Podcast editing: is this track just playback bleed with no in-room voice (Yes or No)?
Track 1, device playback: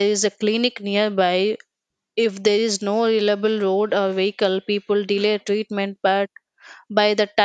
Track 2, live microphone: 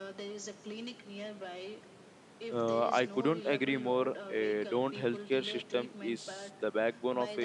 No